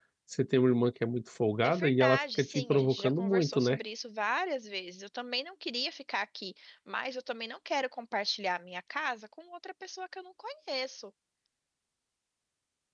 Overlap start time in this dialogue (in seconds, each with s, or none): 1.6 s